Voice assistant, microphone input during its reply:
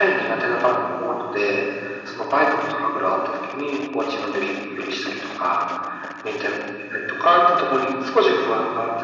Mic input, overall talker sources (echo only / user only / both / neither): echo only